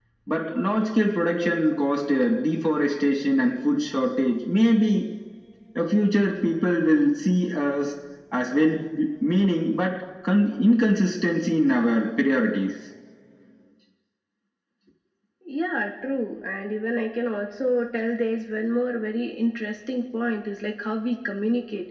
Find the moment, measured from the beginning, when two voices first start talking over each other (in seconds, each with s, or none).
none